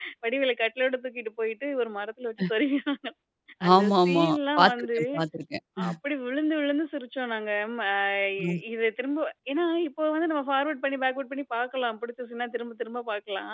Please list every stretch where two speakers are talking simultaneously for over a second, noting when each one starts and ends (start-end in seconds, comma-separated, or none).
3.8-5.0